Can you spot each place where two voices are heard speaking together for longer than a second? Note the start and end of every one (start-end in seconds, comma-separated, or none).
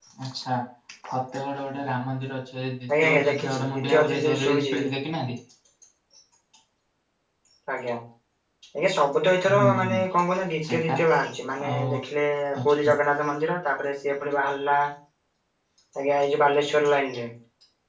3.0-4.8